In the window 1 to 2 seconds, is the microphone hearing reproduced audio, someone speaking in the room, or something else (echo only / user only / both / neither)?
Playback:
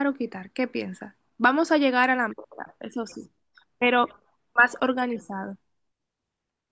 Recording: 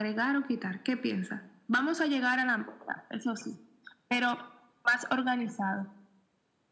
echo only